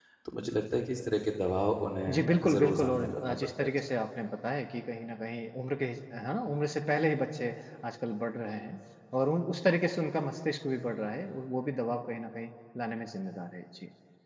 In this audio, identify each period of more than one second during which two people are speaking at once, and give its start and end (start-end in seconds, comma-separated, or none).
2.1-3.7